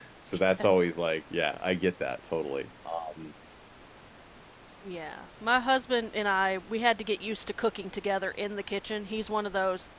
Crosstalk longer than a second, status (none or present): none